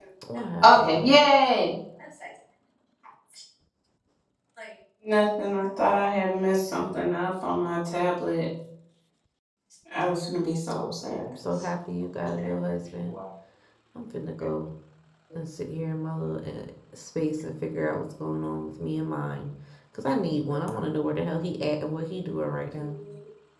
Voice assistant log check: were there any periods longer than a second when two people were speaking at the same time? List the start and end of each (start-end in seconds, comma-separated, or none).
none